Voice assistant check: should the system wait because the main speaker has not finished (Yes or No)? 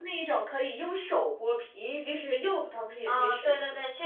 No